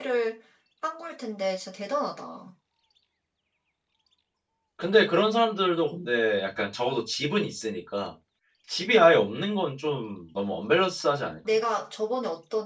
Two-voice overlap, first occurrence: none

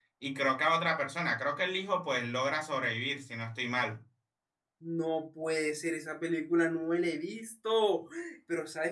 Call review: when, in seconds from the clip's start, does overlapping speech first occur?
none

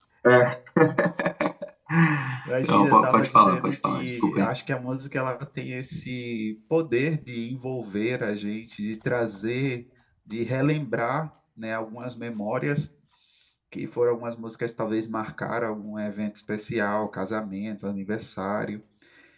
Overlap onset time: 3 s

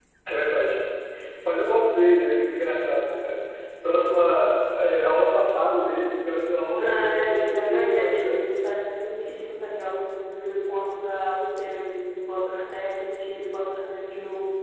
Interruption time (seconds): 7 s

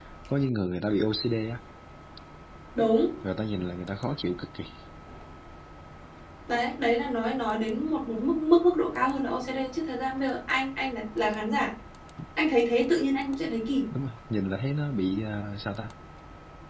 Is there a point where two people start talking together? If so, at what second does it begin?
none

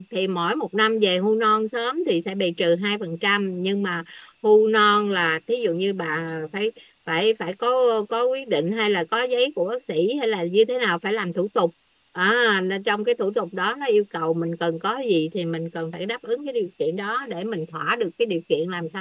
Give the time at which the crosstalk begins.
none

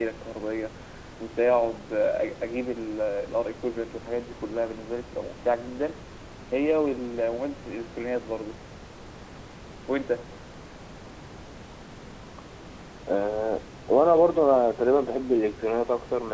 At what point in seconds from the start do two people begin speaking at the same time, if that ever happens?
none

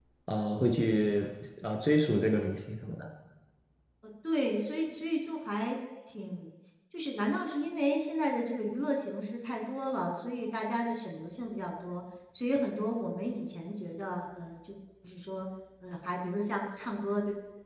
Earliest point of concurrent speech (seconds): none

